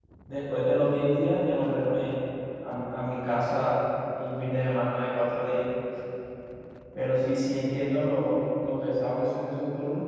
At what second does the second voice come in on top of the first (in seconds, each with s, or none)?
none